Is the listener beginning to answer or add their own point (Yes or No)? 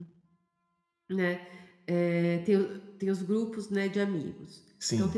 No